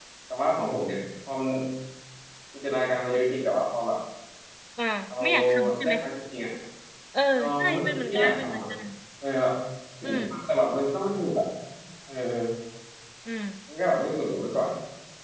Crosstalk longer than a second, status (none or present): present